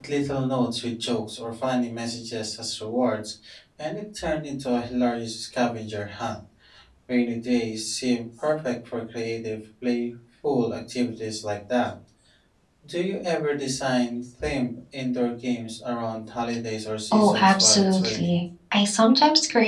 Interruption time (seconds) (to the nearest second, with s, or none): 17 s